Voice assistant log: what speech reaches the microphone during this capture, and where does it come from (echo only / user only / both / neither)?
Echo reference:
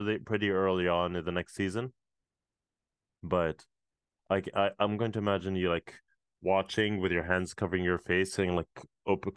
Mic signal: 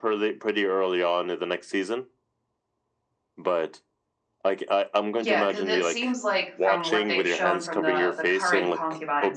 both